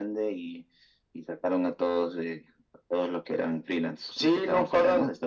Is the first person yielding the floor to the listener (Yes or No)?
Yes